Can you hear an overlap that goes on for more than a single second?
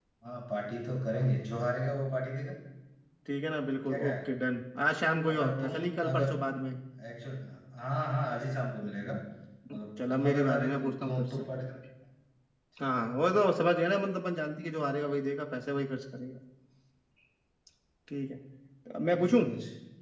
Yes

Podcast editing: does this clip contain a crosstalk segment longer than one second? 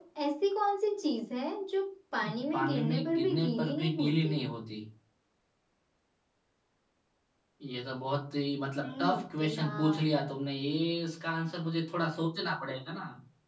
Yes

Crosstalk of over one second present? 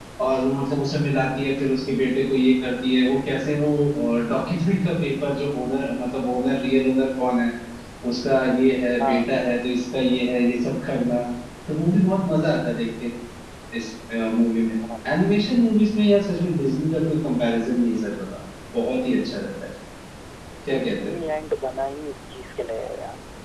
No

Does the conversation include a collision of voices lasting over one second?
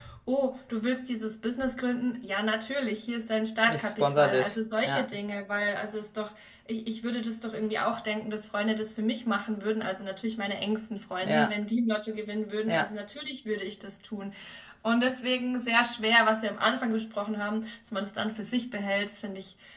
Yes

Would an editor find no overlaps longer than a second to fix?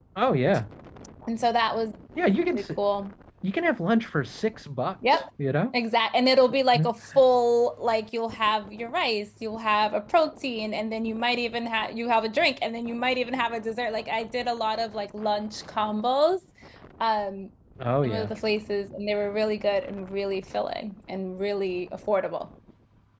Yes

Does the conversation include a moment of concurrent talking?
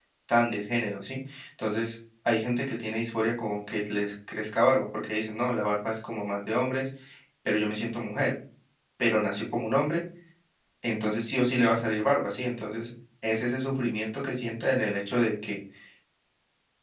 No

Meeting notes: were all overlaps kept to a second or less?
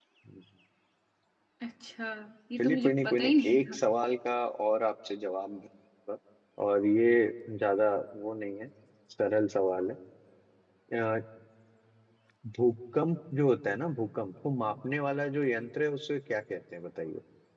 No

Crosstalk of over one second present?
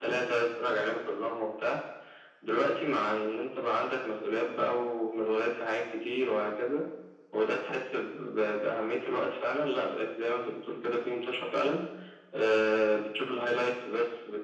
No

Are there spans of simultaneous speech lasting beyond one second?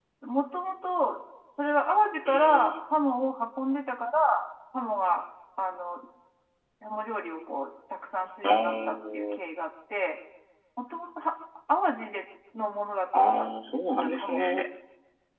Yes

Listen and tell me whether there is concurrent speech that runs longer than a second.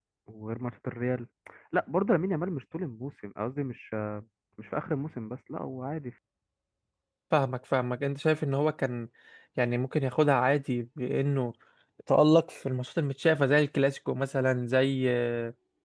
No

